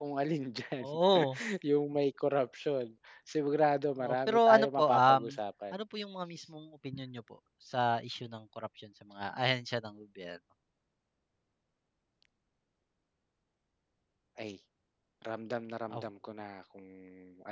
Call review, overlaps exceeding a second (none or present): present